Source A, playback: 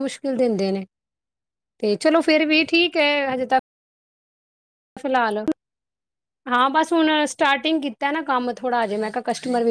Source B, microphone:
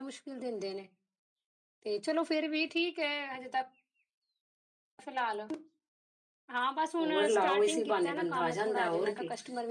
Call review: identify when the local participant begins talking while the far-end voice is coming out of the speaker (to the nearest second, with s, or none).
7 s